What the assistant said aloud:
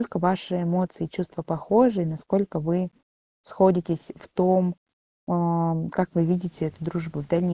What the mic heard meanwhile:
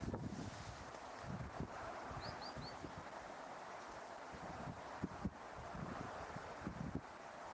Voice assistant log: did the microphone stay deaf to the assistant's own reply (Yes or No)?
Yes